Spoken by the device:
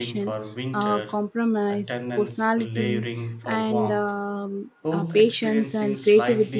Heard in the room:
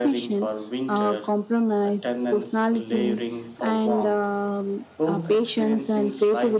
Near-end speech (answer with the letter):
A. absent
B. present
A